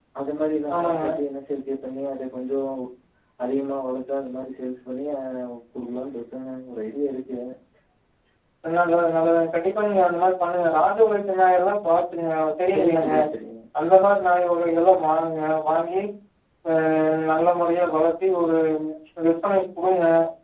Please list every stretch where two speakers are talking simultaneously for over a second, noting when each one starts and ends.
none

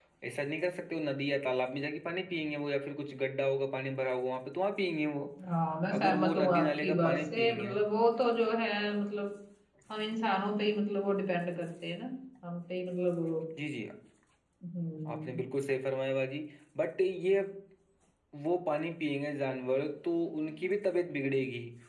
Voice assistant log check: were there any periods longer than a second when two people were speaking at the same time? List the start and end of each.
6.0-7.7

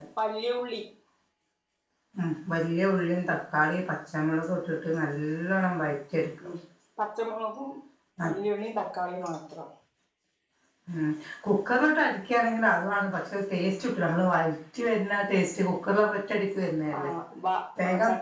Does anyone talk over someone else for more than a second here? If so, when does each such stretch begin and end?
none

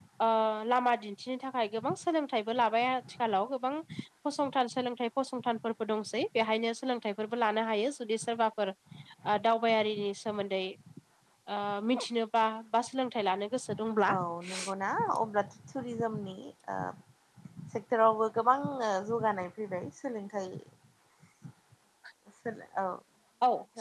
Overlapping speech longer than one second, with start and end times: none

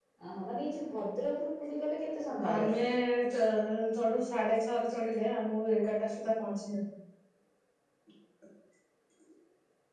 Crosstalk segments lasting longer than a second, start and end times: none

